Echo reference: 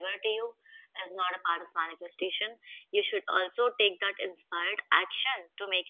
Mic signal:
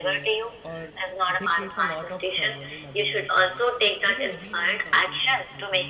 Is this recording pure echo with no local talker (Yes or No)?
No